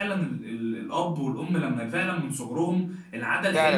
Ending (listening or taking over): taking over